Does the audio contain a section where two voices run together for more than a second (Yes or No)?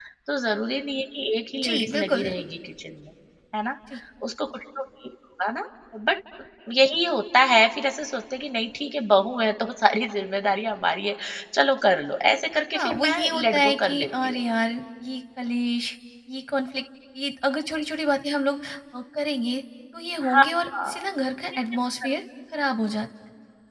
Yes